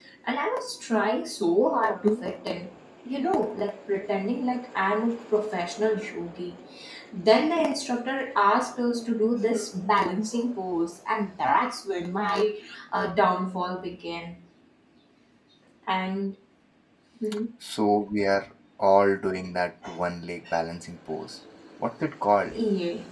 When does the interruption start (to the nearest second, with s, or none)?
none